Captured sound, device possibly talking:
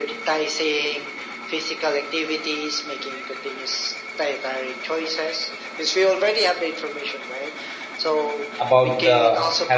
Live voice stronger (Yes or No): Yes